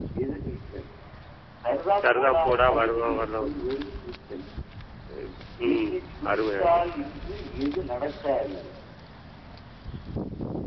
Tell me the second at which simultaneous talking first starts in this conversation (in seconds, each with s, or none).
2.0 s